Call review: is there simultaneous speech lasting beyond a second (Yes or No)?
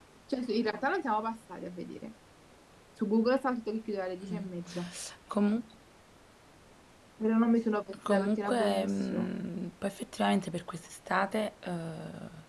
Yes